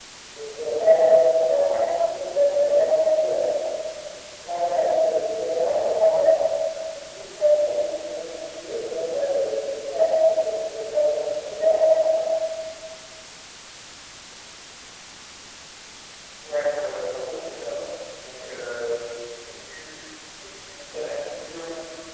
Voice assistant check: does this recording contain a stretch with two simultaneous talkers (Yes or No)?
No